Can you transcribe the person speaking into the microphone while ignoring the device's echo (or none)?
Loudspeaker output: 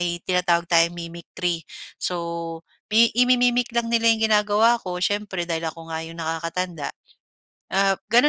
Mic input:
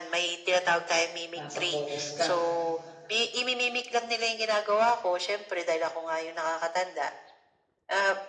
Nasa focus ka.